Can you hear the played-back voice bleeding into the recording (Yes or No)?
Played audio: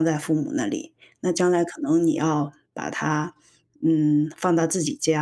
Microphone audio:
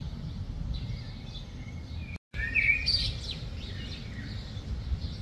No